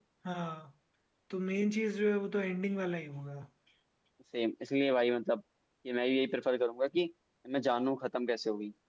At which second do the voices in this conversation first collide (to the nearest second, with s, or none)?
none